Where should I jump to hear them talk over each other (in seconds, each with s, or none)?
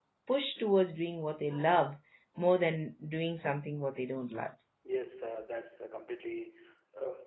none